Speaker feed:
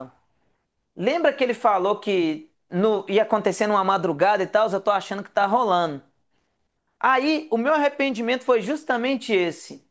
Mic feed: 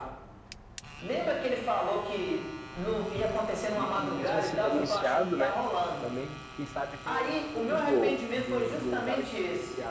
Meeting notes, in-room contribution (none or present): present